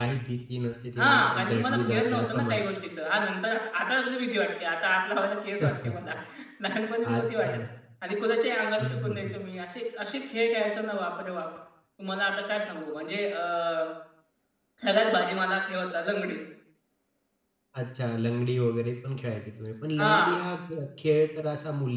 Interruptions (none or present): present